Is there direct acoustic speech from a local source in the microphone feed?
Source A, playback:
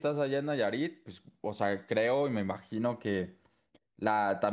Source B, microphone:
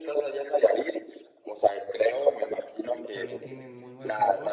Yes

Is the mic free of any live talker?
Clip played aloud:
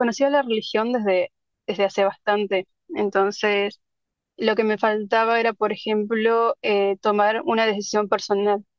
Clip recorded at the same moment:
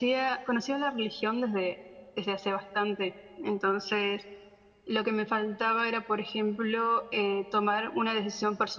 Yes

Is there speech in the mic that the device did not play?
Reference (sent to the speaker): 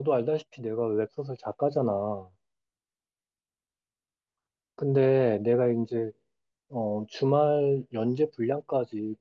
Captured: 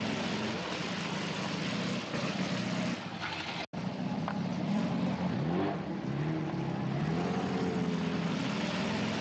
No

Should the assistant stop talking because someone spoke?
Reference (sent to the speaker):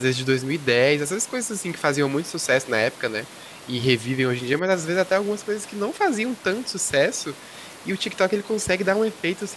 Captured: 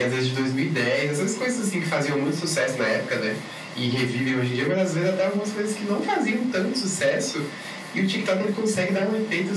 No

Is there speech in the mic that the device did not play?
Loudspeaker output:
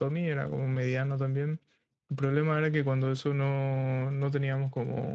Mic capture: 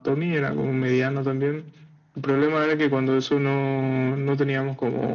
No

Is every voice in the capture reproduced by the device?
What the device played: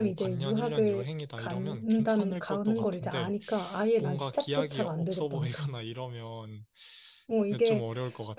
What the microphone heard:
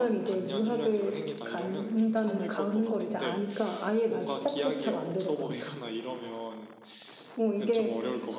Yes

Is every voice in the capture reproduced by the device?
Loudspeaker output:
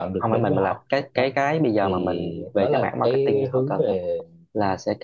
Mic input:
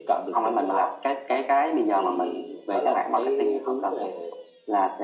Yes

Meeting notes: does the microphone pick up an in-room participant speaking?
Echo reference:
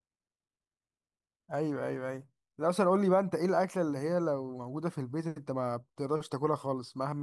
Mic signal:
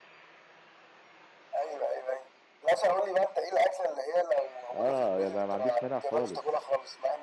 Yes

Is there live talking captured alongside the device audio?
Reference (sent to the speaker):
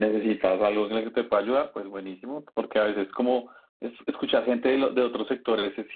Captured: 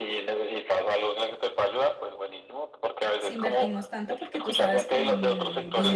Yes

